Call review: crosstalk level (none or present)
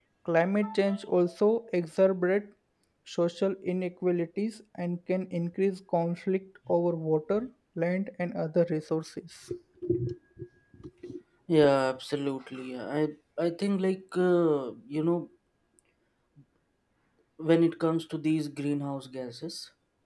none